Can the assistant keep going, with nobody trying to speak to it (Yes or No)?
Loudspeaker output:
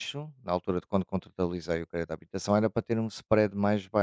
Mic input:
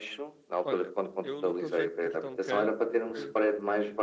No